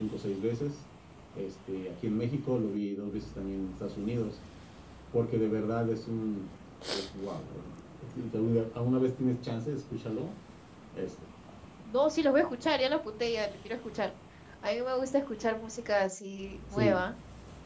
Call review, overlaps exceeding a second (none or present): none